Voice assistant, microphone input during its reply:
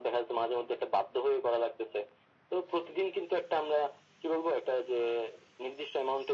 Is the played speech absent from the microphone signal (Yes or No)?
No